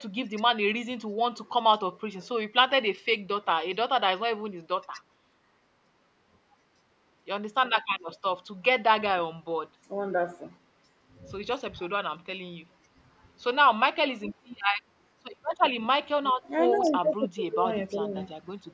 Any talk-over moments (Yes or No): Yes